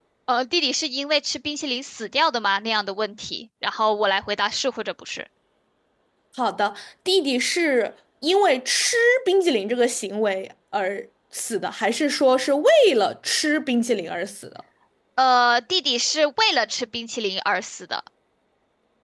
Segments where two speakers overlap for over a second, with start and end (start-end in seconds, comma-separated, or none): none